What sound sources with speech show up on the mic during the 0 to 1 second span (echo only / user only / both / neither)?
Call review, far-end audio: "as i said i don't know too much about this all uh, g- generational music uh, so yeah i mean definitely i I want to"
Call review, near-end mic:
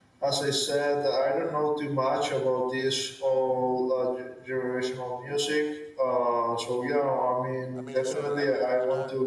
echo only